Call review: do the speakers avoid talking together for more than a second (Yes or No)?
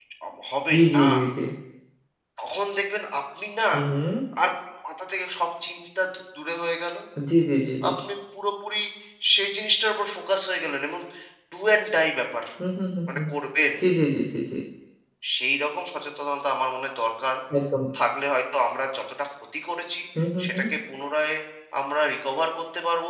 Yes